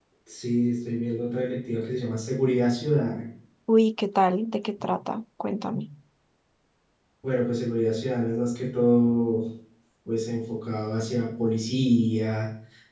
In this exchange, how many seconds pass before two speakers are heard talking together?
none

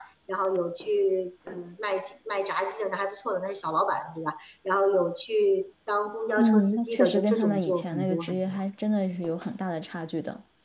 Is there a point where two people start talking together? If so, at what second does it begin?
6.4 s

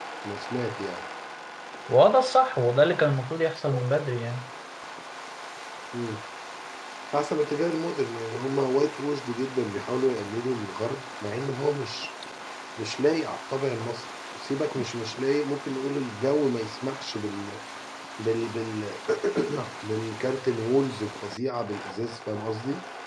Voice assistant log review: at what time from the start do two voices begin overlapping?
none

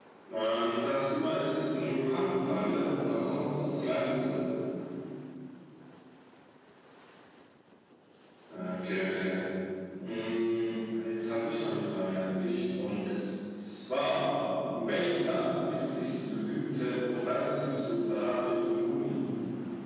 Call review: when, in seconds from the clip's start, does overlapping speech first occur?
1.7 s

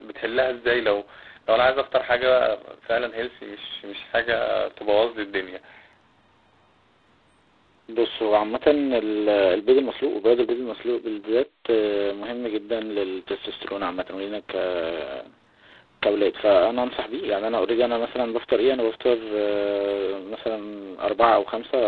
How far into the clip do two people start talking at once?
none

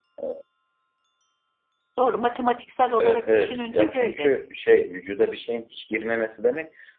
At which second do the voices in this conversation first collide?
2.9 s

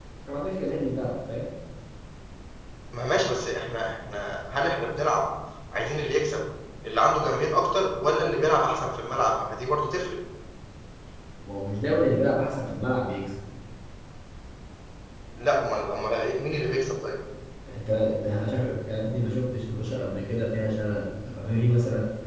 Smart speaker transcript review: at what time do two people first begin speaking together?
none

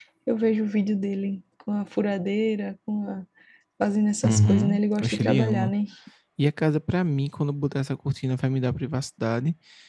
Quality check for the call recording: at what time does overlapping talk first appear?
4.2 s

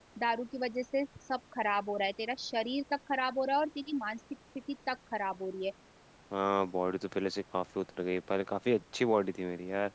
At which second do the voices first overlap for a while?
none

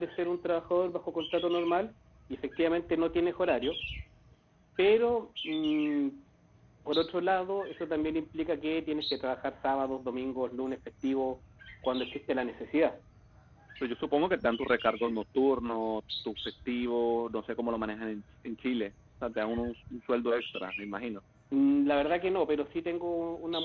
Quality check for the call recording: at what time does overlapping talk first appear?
none

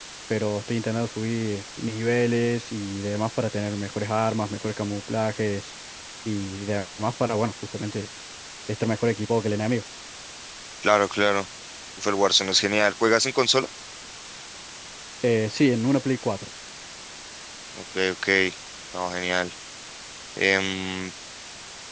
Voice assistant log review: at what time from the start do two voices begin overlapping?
none

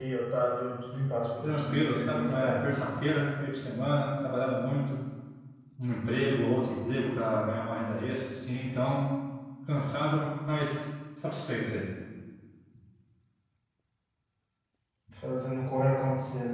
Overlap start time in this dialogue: 1.4 s

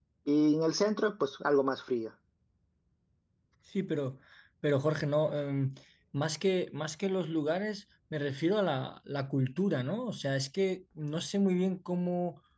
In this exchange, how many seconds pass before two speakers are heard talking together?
none

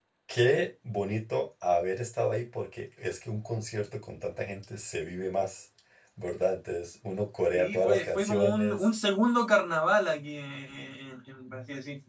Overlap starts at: 7.5 s

